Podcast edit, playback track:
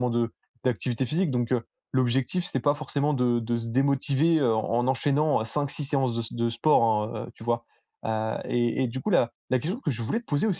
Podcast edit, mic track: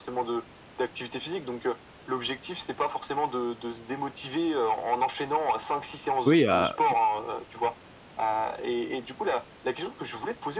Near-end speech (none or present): present